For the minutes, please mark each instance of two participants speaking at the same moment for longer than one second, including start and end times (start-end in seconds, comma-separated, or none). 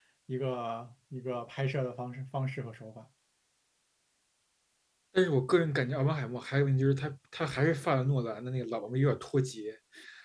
none